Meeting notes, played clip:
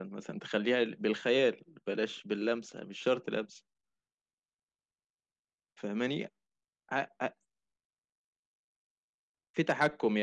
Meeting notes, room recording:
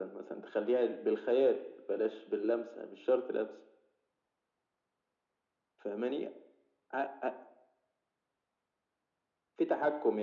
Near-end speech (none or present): none